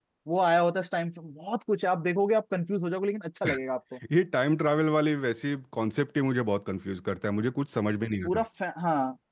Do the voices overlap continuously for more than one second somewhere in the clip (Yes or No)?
No